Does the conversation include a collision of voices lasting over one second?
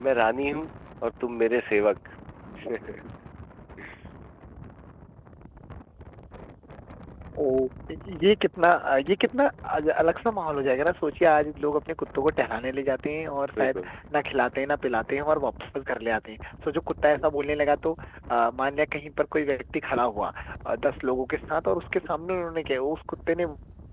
No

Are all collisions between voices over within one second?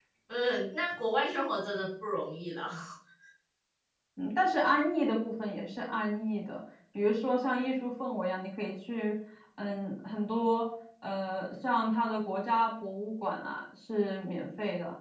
Yes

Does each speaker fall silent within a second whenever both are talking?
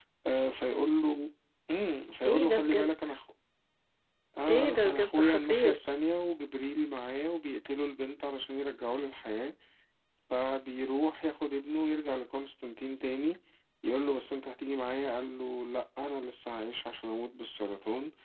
No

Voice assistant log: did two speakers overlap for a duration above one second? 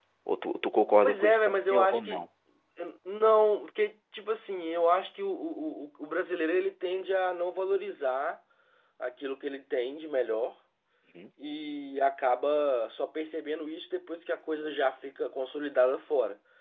Yes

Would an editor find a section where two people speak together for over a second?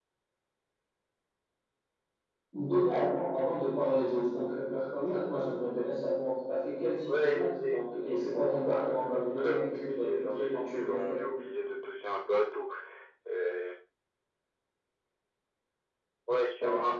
Yes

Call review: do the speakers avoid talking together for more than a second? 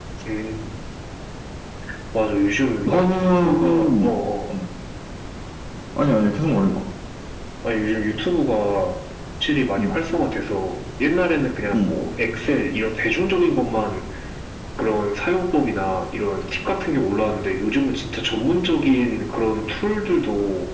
No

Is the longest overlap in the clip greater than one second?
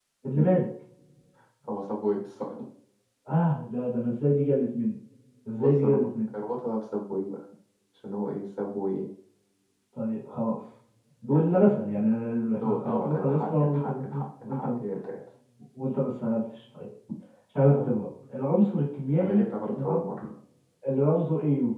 Yes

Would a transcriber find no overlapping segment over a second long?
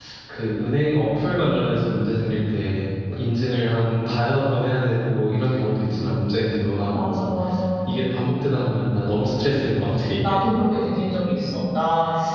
Yes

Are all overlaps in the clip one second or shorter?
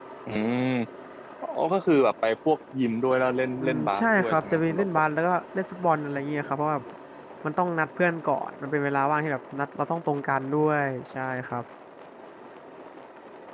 No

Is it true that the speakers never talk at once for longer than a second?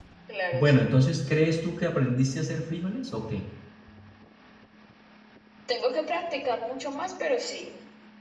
Yes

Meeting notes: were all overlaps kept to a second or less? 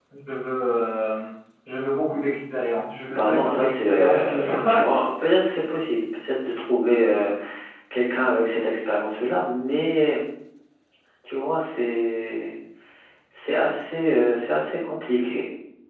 No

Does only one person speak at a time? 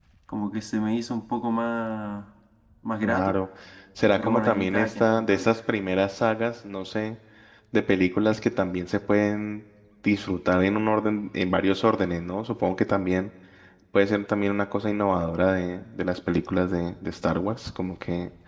No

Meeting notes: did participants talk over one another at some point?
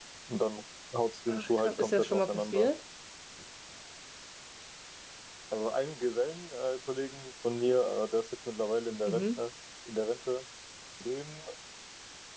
Yes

